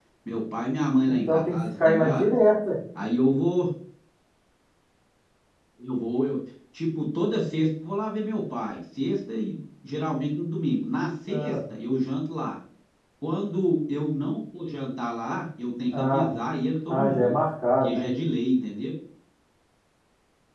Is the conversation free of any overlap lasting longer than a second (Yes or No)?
No